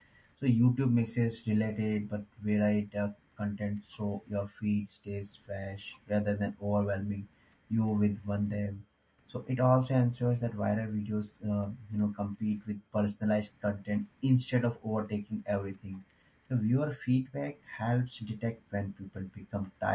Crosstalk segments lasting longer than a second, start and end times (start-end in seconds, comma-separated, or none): none